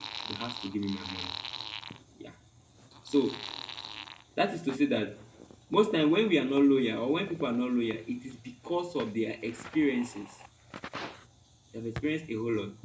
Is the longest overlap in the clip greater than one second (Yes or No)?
No